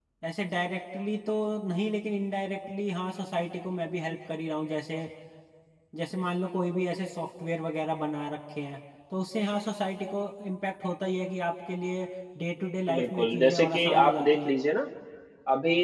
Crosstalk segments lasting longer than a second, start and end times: 12.9-14.5

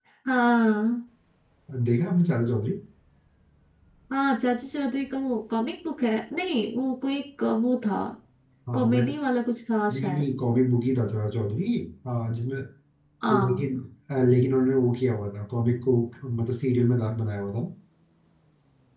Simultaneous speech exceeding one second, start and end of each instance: none

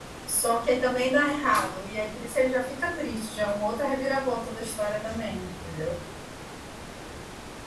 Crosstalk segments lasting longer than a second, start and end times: none

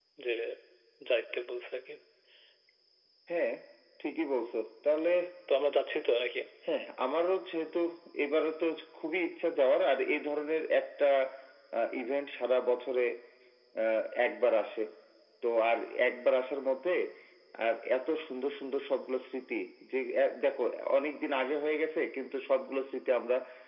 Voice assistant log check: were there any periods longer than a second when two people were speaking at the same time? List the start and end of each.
none

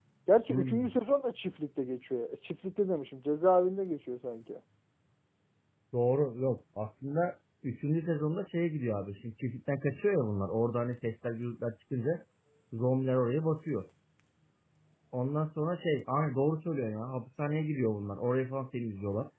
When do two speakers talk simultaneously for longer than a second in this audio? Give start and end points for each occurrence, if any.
none

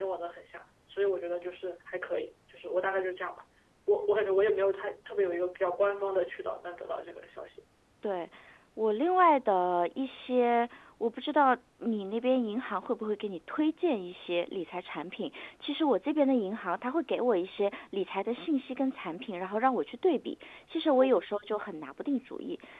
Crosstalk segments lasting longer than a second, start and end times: none

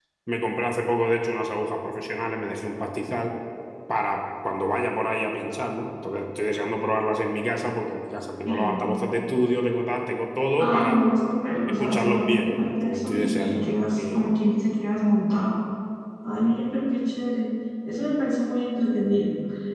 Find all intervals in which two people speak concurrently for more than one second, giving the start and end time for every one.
11.8-14.3

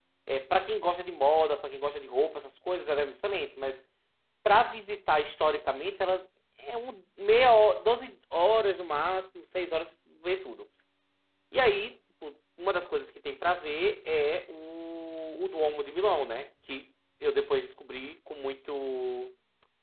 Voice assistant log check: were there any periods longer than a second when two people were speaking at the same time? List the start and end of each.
none

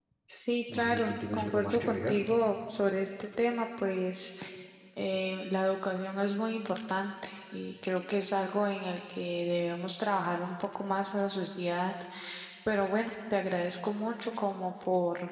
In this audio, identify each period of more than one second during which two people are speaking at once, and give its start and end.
0.7-2.2

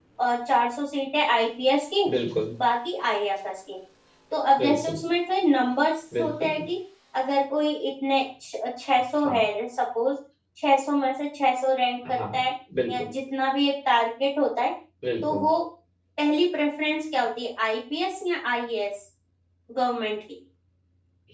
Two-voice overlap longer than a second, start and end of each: none

